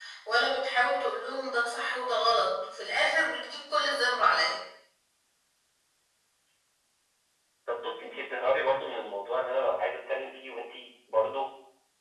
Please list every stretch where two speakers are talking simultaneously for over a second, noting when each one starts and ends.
none

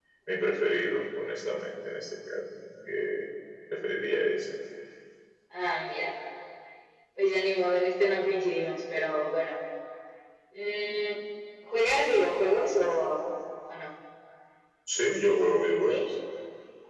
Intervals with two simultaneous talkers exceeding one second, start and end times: none

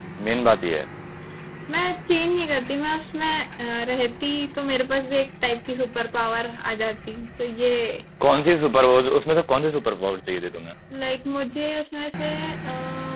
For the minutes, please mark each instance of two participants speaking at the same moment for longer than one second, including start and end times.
none

